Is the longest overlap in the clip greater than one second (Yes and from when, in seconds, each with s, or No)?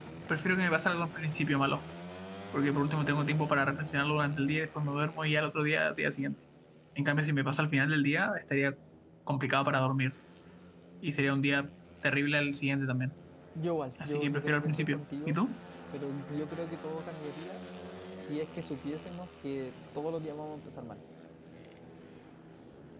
Yes, from 14.0 s